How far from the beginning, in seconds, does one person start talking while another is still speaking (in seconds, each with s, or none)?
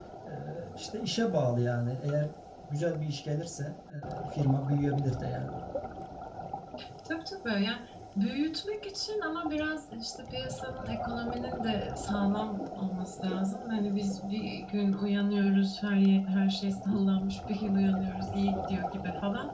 none